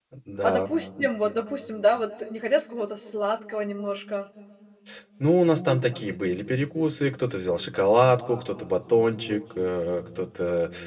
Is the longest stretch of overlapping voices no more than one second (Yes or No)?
Yes